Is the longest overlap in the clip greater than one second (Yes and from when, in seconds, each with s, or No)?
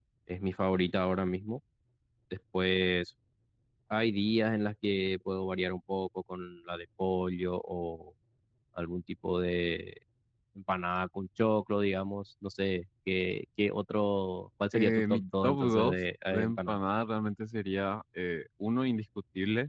Yes, from 14.7 s